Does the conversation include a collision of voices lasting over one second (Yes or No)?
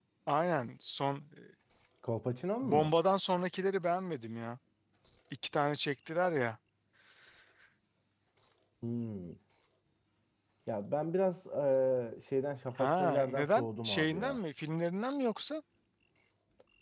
Yes